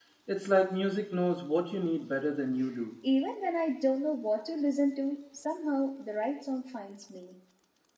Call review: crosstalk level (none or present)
none